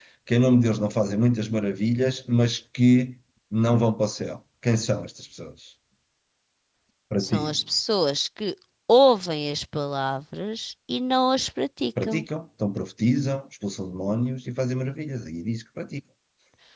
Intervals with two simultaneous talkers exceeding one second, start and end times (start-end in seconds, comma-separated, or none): none